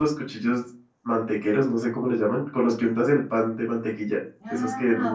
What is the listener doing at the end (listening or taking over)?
taking over